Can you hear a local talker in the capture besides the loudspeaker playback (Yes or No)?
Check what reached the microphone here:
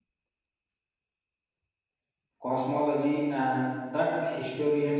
Yes